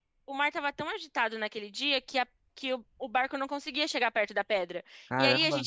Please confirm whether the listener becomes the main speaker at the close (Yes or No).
No